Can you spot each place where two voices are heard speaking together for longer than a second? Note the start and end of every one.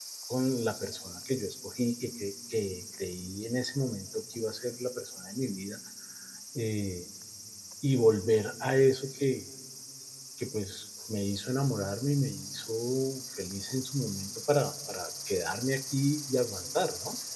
none

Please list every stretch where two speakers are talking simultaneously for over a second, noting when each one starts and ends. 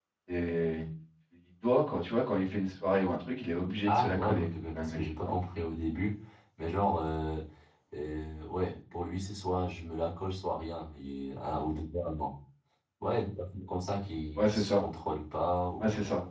3.9-5.4

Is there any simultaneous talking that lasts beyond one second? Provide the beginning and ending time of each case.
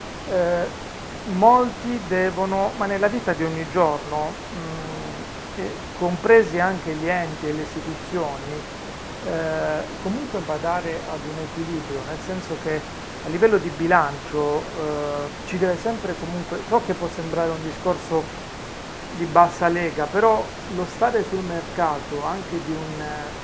none

